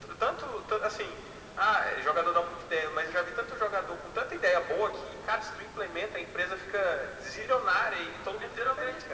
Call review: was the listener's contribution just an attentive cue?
No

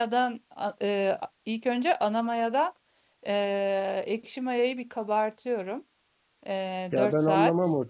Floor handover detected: Yes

